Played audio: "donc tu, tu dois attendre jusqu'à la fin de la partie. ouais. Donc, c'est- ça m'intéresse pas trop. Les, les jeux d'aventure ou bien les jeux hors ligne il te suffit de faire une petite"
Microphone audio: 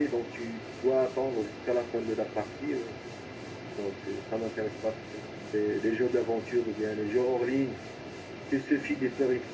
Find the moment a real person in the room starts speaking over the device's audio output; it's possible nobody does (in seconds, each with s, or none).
none